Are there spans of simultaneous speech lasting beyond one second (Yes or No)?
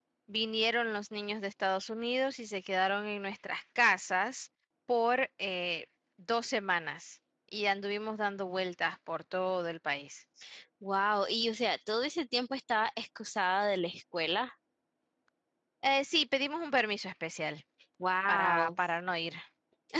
No